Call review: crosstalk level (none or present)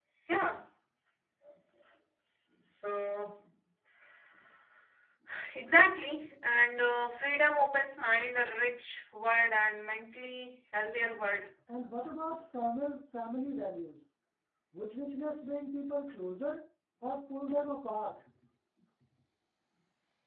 none